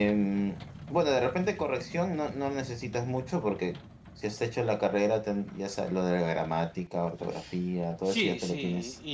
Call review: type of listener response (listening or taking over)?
taking over